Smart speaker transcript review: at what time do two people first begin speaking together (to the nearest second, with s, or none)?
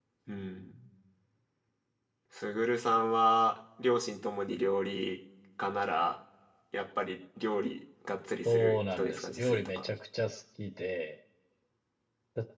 8 s